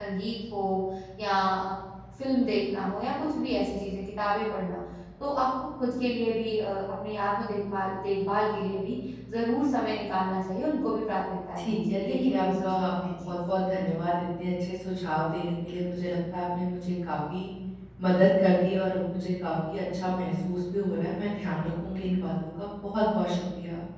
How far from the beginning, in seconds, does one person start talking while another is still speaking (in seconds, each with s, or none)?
11.6 s